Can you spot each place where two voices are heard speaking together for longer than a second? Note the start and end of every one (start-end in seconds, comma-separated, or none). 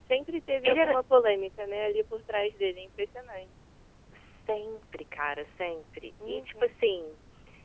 none